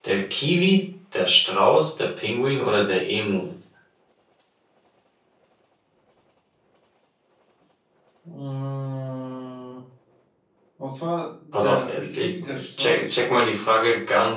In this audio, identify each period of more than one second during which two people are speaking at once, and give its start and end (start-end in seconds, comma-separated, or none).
11.5-13.6